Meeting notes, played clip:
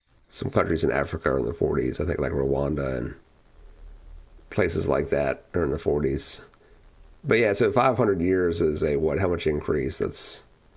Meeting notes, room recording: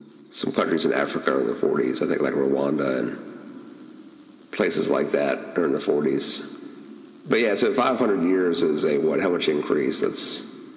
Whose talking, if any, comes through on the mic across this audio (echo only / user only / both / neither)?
echo only